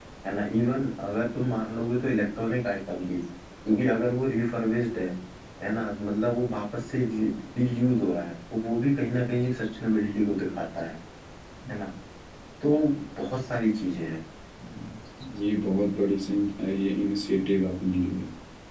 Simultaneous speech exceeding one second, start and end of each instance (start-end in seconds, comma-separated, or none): none